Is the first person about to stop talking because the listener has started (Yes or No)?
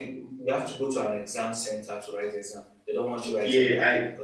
Yes